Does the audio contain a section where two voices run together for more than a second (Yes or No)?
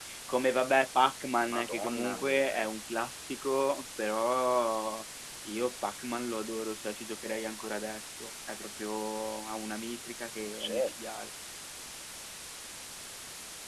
Yes